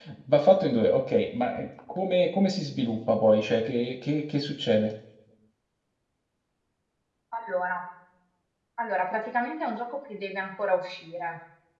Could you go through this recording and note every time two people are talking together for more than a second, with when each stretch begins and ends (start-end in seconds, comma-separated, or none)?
none